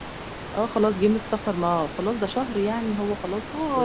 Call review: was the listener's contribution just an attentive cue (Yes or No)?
No